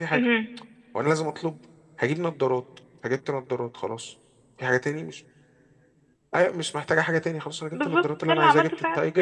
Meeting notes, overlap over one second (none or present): present